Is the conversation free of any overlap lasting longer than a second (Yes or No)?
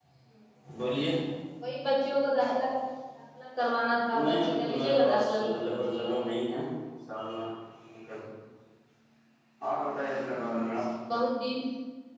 No